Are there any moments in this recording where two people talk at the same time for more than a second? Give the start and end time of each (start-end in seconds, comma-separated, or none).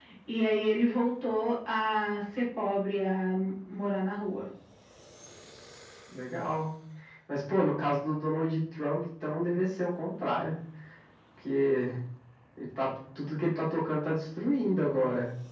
none